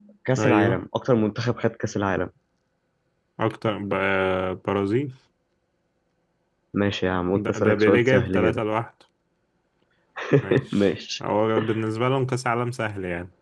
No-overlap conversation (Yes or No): No